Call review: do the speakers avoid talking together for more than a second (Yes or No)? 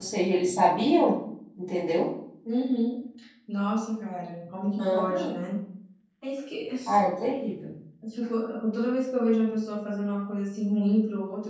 Yes